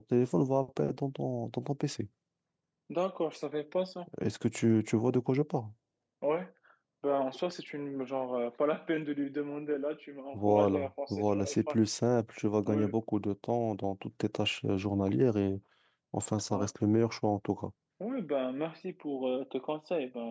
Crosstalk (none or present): present